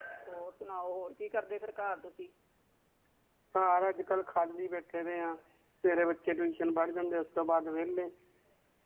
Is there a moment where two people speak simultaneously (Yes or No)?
No